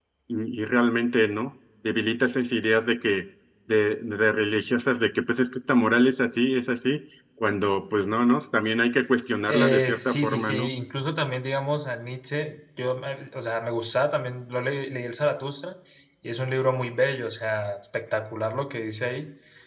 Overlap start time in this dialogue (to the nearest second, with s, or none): 9 s